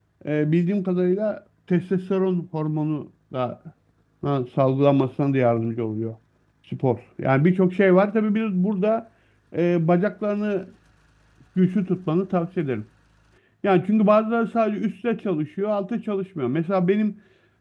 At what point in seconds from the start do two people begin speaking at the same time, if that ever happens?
none

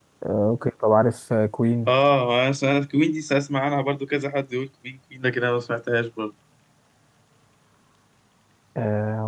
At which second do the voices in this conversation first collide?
none

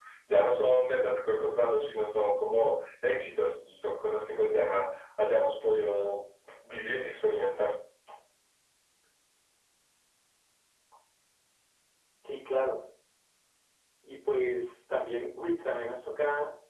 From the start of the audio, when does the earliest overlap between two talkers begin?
none

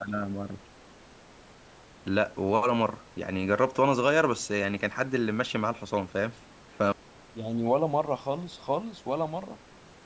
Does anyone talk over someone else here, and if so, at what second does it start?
none

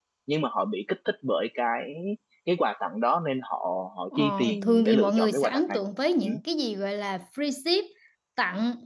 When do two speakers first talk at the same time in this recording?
4.2 s

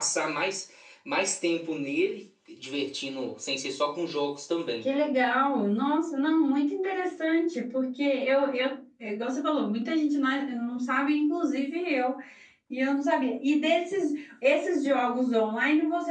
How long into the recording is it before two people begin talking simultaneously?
none

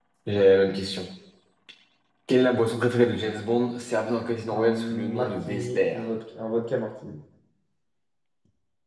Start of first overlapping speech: 4.5 s

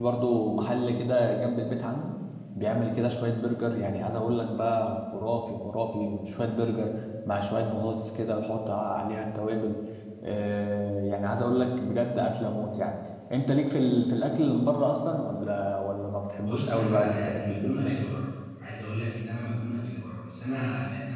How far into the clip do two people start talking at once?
16.4 s

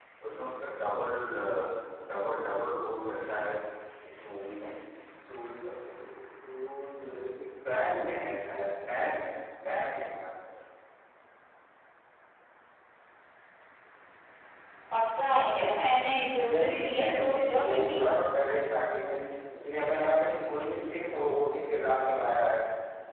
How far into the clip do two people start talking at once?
16.4 s

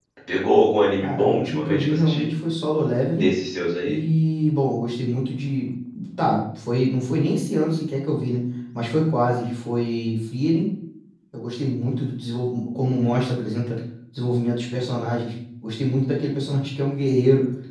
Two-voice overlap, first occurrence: 1.0 s

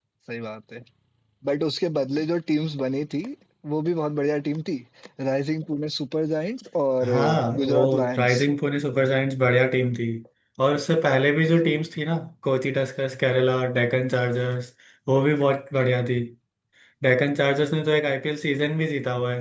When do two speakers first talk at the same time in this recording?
7.0 s

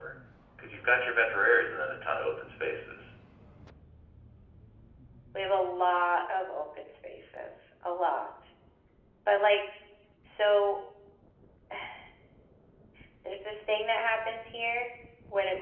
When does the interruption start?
none

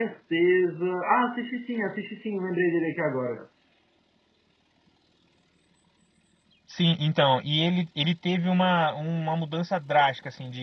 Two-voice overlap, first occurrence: none

